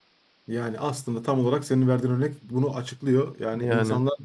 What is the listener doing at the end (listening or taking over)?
listening